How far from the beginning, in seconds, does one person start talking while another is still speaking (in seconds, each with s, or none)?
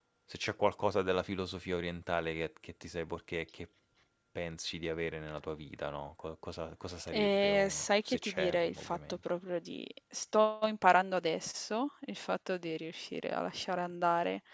7.1 s